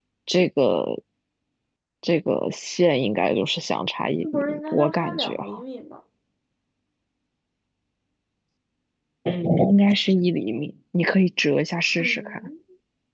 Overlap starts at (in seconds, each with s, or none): 4.3 s